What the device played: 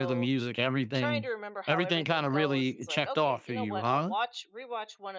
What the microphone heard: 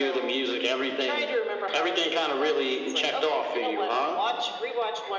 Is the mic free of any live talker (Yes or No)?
Yes